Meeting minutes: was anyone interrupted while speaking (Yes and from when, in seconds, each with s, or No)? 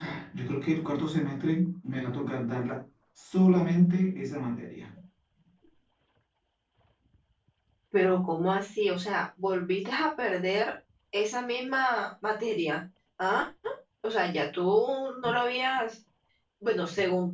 No